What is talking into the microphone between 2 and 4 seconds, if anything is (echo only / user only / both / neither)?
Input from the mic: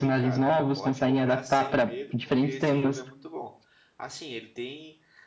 both